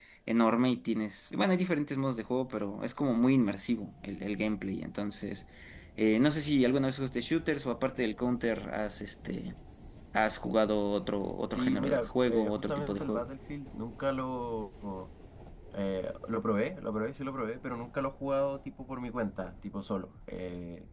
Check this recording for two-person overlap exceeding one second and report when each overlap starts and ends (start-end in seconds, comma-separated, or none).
11.6-13.2